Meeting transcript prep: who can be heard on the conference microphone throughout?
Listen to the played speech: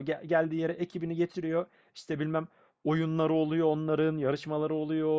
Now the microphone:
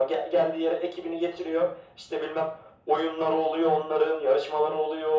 echo only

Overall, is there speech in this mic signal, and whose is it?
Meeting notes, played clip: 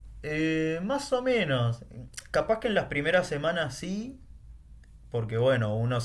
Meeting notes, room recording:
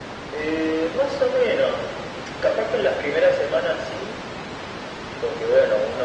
echo only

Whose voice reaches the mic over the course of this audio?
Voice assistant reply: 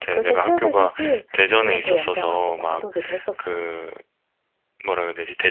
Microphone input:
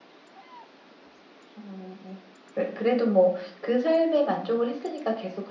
user only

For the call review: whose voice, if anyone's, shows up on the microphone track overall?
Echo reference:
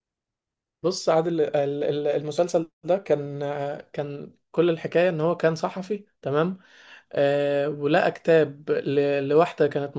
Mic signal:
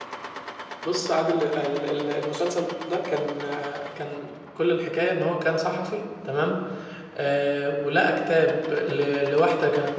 echo only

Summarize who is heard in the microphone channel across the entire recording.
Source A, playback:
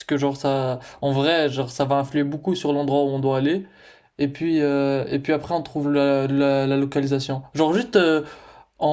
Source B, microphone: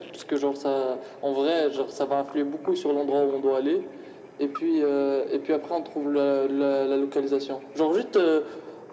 echo only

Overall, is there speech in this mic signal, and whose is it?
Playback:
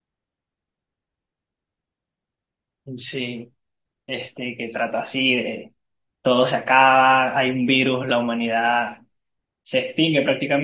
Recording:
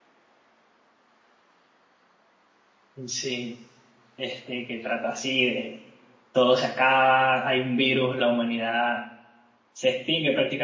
echo only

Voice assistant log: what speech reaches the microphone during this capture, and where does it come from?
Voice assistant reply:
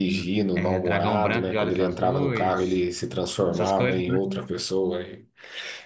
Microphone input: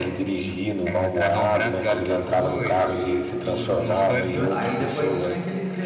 both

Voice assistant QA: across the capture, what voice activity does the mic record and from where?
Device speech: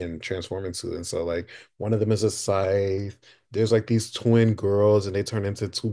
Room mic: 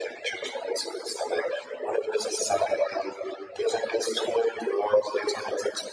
echo only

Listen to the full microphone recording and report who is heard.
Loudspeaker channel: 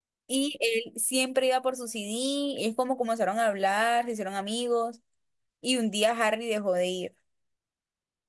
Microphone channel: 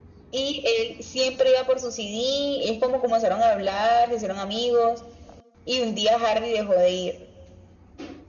echo only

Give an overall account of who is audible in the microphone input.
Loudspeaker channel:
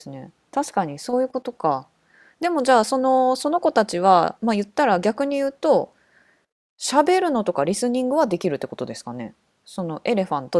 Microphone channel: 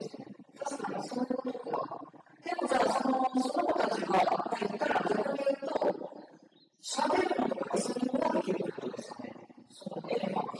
echo only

